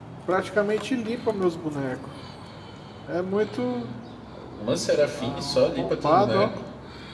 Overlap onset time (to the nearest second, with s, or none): 5 s